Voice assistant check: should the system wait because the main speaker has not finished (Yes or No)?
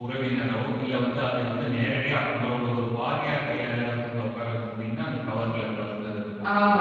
No